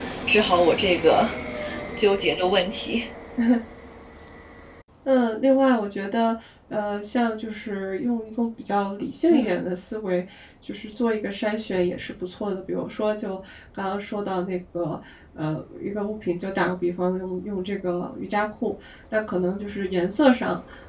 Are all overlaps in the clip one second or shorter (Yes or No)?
Yes